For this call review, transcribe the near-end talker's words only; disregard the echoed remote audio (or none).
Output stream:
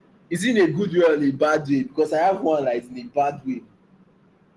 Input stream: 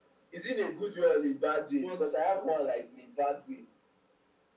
but